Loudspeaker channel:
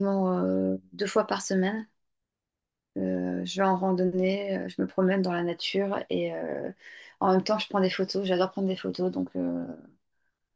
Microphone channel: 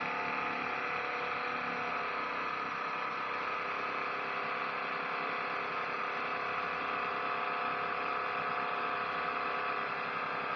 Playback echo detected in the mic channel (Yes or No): No